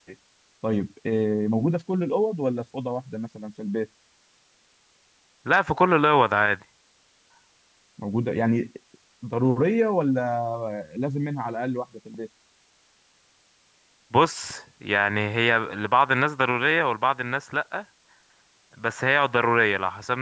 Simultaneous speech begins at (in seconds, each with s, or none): none